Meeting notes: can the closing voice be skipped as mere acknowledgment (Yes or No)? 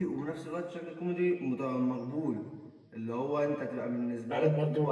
No